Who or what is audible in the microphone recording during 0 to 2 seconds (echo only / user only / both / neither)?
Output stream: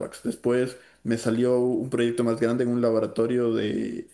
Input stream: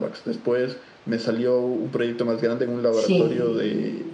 echo only